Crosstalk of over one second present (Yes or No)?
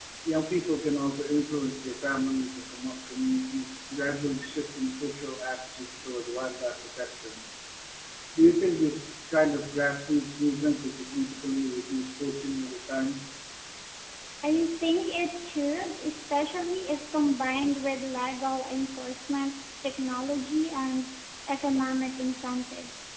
No